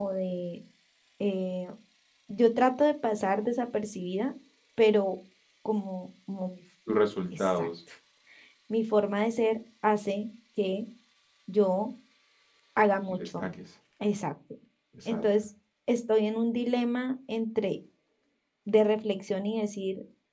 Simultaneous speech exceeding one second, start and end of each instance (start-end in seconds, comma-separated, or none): none